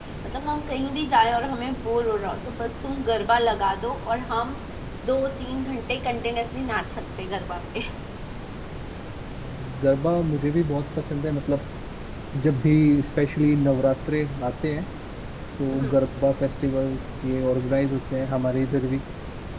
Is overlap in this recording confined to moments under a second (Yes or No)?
Yes